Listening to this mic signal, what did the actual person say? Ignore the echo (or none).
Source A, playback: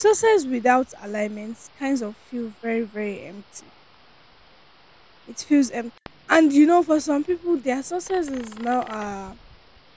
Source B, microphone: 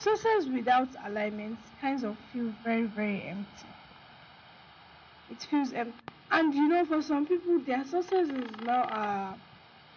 none